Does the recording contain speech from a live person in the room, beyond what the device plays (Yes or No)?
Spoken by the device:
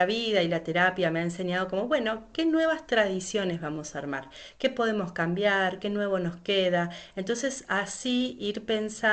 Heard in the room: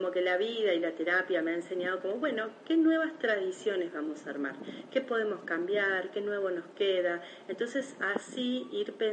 No